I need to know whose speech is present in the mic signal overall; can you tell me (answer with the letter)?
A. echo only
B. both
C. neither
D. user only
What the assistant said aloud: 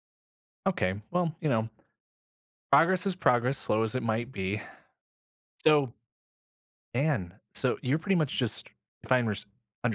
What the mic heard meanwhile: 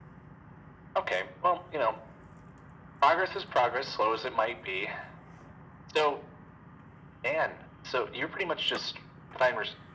A